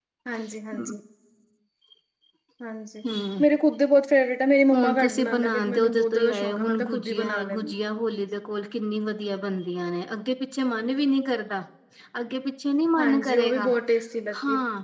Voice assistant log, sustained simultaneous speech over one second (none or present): present